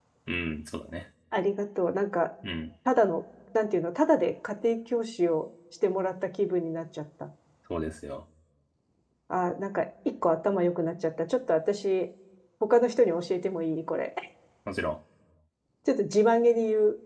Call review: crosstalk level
none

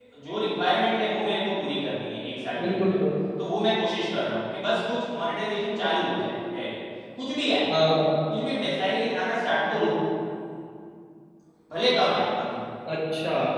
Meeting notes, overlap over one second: none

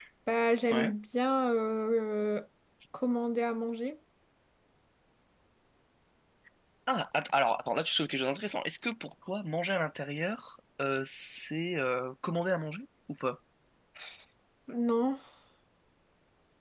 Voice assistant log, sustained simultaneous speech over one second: none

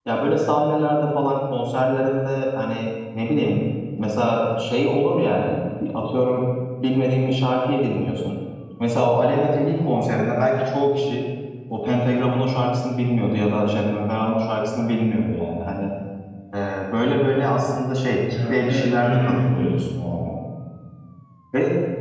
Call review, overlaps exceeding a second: present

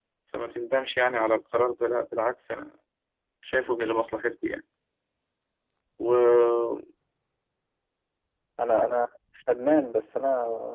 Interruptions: none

